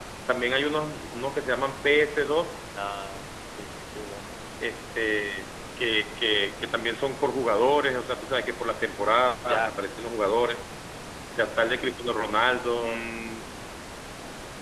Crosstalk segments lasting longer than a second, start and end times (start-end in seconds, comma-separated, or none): none